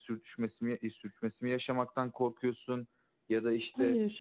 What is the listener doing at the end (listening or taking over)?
listening